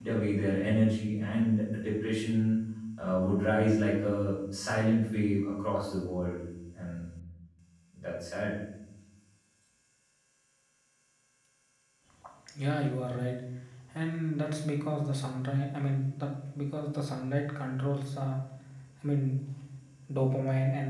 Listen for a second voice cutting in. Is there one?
No

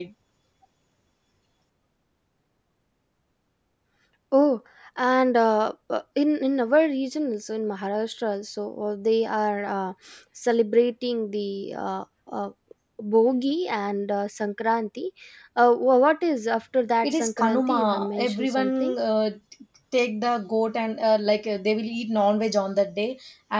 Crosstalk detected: Yes, from 17.0 s

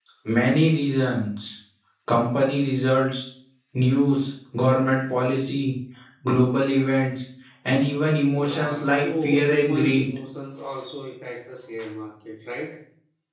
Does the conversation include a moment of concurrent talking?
Yes, from 8.4 s

